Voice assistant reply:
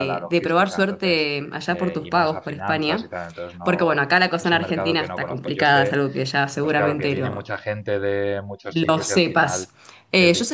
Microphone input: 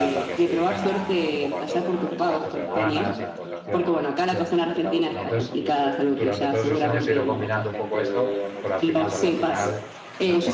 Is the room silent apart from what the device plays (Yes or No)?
No